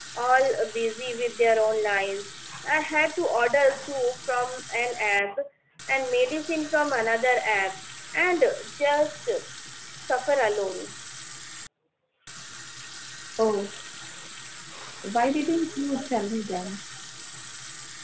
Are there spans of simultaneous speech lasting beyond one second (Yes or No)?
No